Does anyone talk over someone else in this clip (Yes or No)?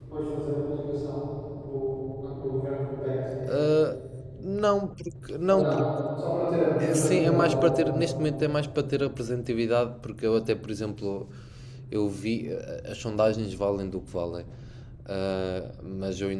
Yes